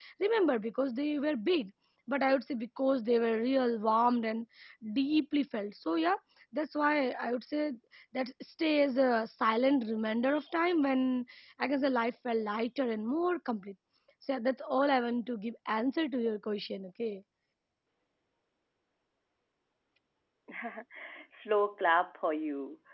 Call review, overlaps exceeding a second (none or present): none